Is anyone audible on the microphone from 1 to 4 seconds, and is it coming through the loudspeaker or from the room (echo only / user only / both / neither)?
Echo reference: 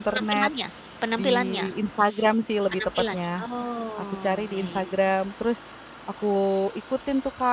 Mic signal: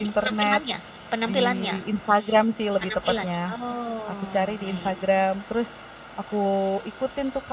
echo only